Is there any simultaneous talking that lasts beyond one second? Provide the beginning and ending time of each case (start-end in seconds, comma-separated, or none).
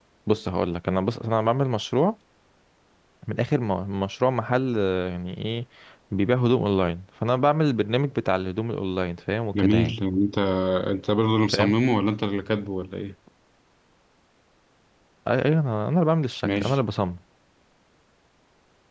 none